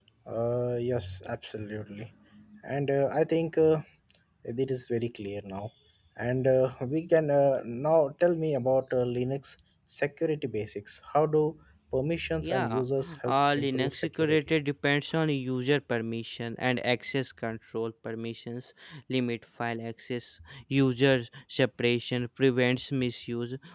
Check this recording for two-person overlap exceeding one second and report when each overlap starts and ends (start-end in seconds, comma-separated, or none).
13.3-14.5